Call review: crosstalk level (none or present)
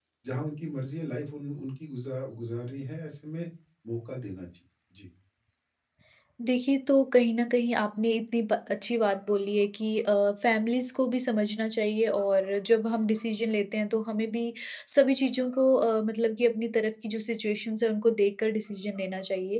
none